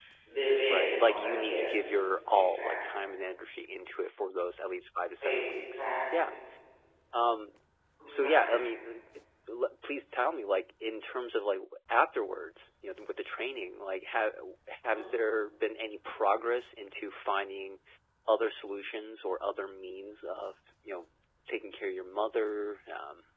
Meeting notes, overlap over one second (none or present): present